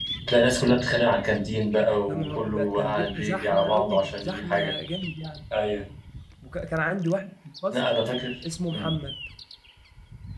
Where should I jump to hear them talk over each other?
2.1 s

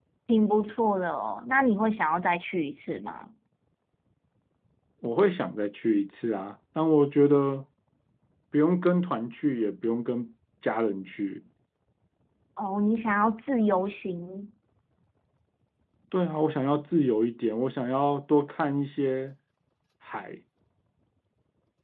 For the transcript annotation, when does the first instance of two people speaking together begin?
none

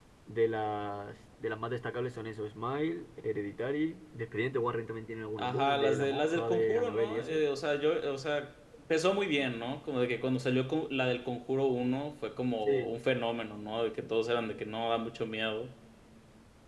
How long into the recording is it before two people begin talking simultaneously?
5.4 s

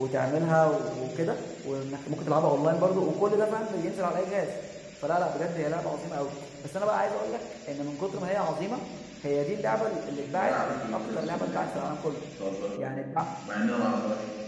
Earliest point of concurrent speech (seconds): 10.3 s

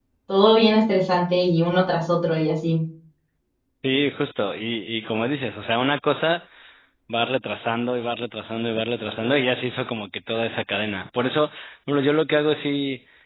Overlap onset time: none

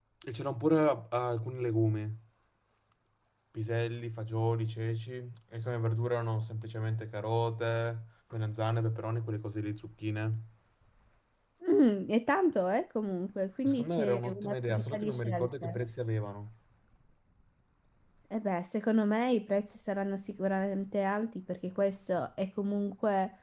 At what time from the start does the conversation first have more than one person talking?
13.7 s

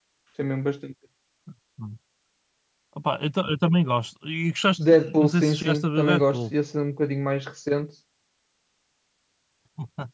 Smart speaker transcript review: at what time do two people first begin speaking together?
4.8 s

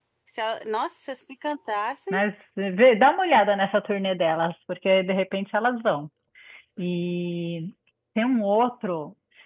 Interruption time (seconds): none

